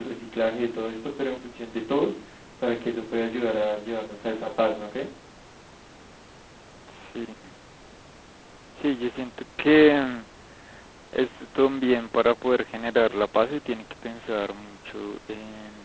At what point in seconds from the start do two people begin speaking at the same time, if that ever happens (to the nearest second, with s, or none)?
none